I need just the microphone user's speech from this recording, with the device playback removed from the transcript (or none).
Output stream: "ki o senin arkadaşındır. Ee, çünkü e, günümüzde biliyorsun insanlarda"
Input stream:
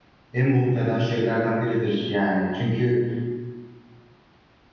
en mutlu eden şeylerden biridir yani. Çünkü